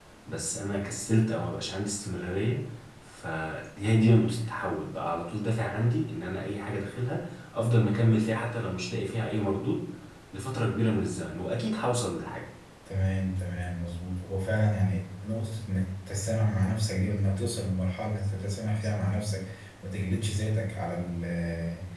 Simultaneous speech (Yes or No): No